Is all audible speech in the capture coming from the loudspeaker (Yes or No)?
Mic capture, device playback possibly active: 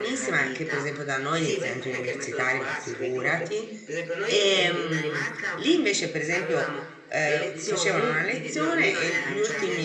No